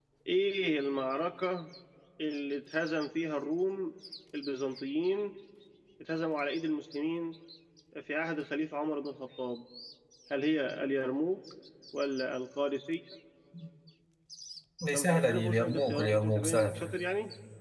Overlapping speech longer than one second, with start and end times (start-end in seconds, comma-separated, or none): 14.9-16.8